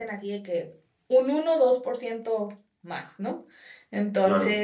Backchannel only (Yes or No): Yes